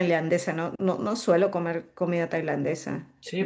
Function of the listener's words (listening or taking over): taking over